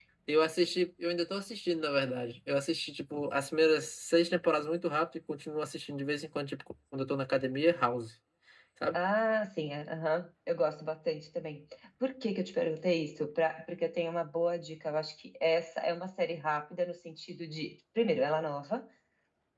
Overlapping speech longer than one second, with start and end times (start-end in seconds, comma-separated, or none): none